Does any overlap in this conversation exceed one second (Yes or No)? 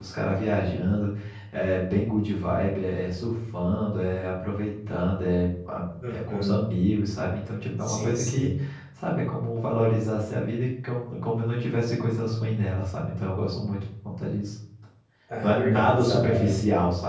Yes